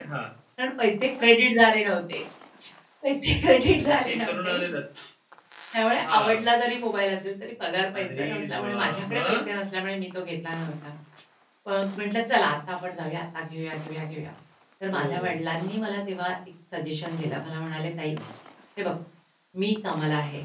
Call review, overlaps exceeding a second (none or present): present